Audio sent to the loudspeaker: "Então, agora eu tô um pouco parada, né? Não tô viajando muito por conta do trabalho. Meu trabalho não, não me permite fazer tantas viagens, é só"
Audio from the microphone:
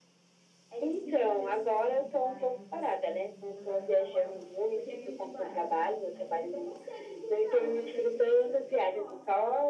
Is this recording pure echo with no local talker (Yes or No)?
No